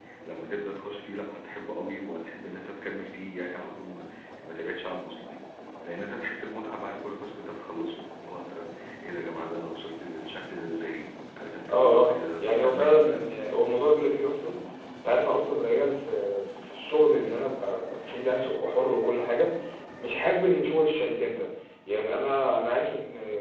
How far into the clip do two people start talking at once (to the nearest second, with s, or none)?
12 s